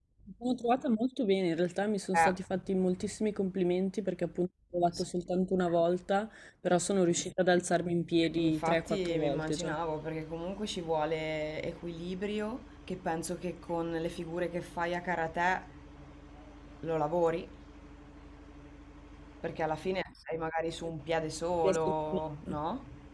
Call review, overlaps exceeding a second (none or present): present